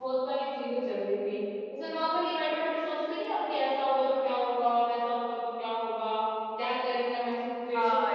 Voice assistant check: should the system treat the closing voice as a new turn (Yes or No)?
Yes